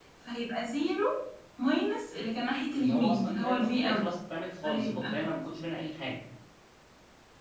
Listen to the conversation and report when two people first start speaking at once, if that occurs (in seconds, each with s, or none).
2.7 s